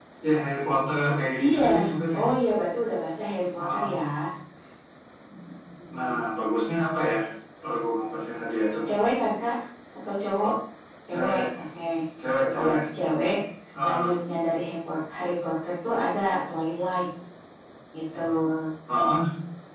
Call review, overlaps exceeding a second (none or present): none